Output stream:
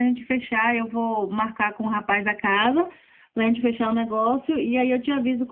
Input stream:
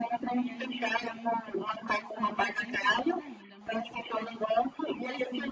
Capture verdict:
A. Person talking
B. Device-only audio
A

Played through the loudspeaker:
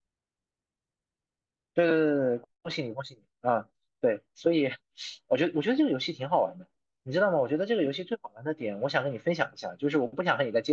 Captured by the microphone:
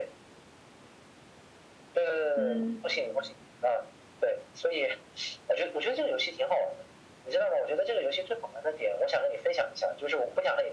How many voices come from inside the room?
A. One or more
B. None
A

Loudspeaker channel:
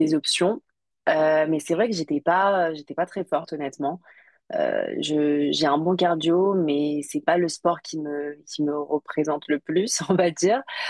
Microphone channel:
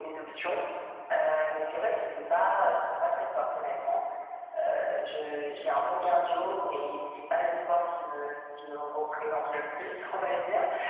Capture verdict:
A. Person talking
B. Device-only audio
B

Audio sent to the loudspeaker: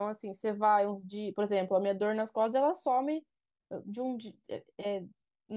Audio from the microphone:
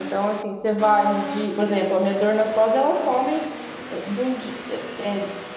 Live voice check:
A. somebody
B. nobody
B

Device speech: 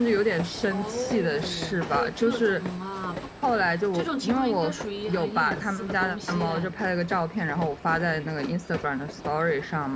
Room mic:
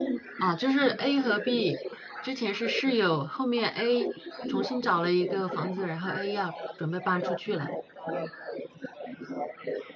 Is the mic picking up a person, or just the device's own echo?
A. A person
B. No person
A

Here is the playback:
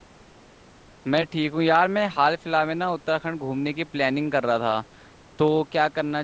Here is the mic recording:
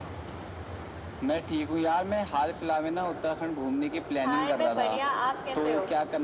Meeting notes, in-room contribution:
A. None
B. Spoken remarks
B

